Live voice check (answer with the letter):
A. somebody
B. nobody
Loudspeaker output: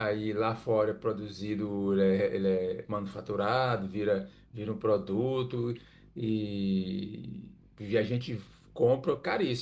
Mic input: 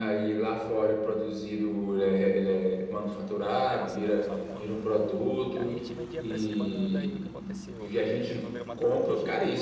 A